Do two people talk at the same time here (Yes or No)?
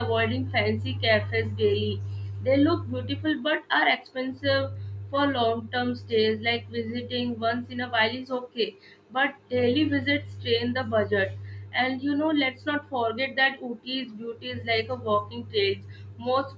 No